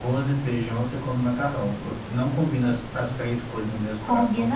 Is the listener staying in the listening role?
No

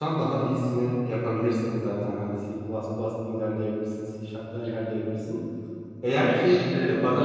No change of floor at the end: No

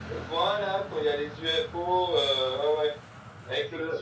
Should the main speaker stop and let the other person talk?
No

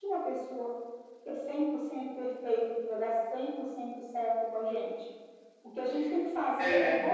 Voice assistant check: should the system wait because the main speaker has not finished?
Yes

